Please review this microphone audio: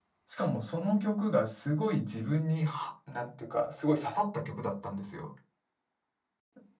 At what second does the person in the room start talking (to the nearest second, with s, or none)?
none